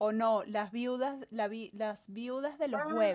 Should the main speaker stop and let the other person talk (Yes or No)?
Yes